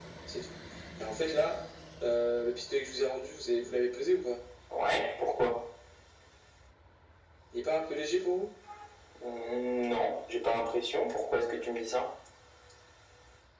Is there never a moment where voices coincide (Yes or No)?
Yes